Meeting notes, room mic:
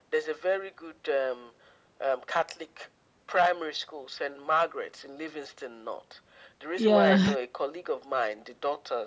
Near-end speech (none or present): present